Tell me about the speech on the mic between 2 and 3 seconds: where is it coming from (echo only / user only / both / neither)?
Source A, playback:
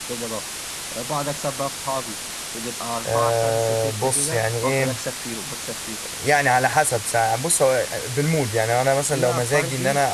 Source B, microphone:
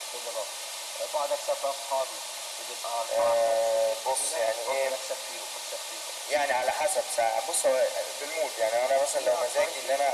echo only